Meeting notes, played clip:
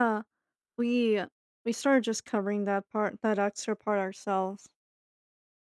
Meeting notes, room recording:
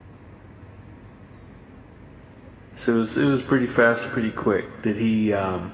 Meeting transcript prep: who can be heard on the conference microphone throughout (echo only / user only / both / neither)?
user only